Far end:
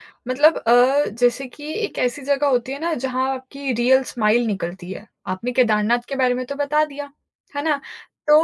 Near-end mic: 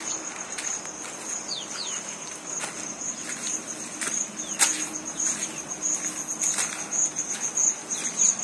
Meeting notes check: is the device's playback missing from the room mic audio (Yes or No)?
Yes